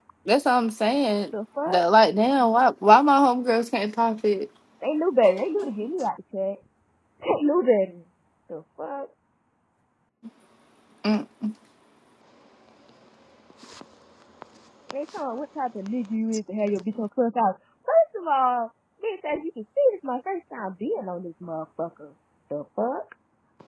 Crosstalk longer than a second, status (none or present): none